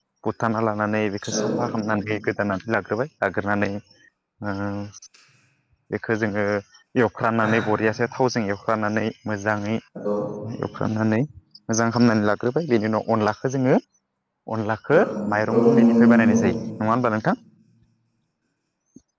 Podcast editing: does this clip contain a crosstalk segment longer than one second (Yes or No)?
Yes